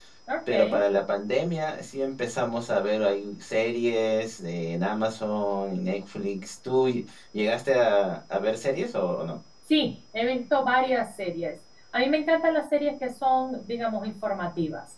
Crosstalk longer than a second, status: none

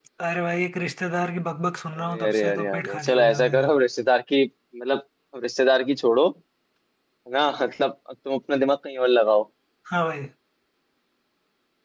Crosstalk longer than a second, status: present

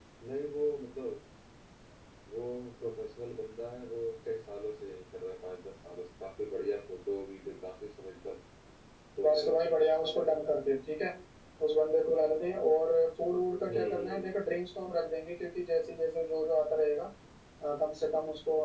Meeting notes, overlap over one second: present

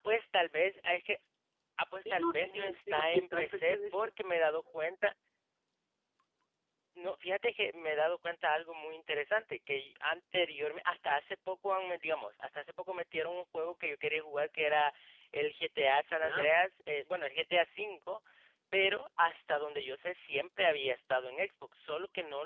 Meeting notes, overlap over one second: present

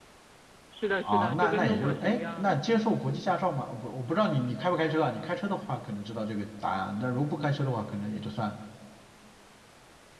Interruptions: present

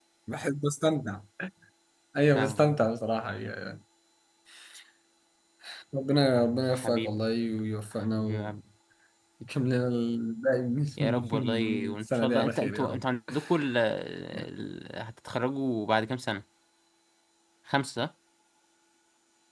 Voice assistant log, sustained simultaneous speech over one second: present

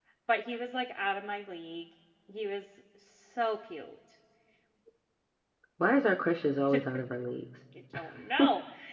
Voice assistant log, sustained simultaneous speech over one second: none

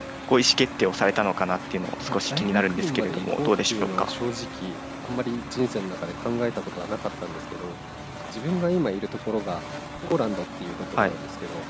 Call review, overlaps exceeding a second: present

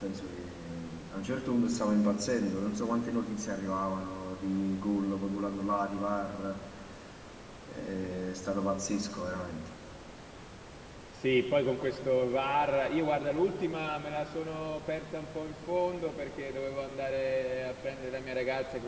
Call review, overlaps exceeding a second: none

